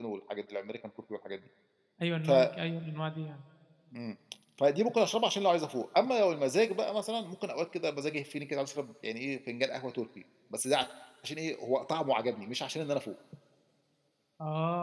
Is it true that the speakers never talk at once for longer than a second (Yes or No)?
Yes